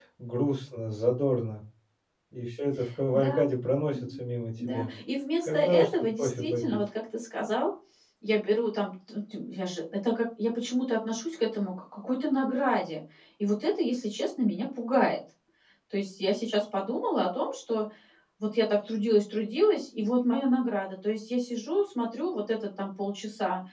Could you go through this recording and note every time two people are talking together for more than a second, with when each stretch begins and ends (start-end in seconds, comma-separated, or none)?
5.5-6.8